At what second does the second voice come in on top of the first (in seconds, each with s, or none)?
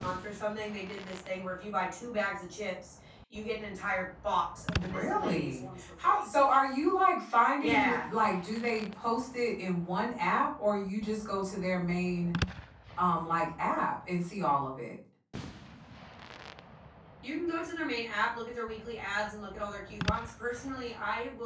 4.7 s